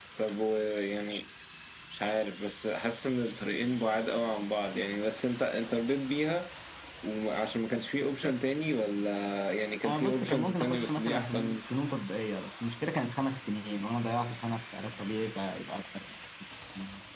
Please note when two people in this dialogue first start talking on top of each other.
9.8 s

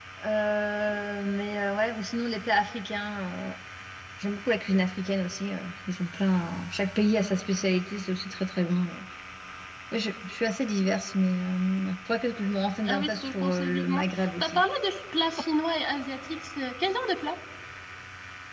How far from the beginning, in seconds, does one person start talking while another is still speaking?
12.9 s

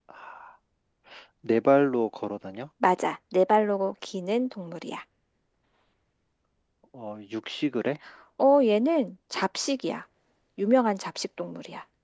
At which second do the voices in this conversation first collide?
none

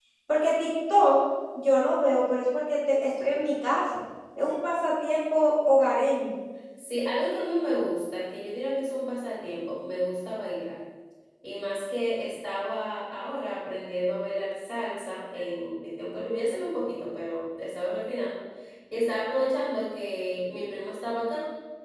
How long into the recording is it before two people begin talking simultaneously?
none

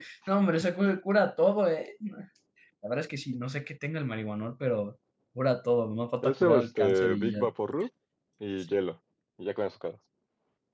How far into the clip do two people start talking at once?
6.2 s

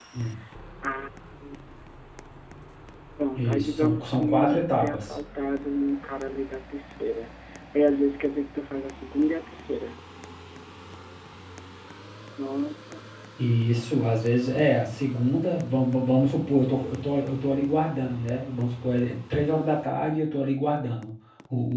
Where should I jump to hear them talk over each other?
3.4 s

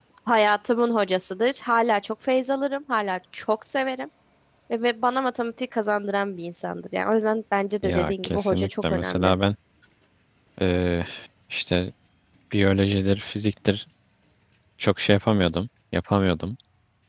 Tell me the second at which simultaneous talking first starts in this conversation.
7.8 s

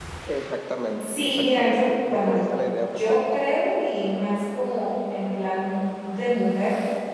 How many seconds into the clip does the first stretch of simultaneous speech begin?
1.0 s

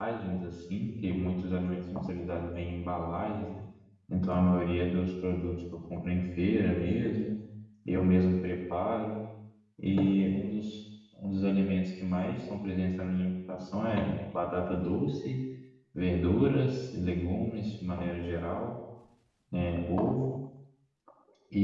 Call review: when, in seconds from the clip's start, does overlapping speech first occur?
none

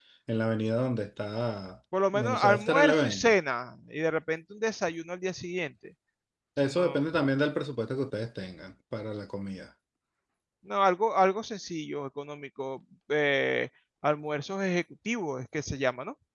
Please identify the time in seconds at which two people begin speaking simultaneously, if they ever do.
2.1 s

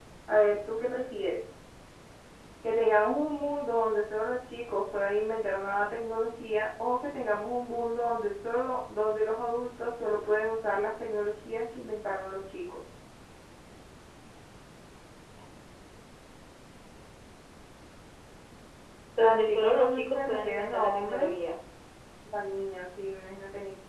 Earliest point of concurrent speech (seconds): 19.2 s

